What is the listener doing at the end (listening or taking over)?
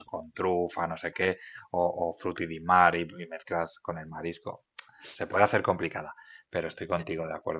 listening